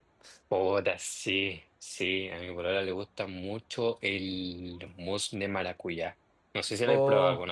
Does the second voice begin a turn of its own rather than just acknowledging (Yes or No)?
Yes